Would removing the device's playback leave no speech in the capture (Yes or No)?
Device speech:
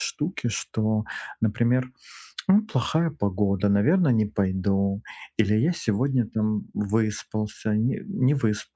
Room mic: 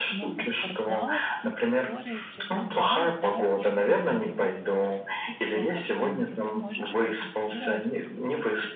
No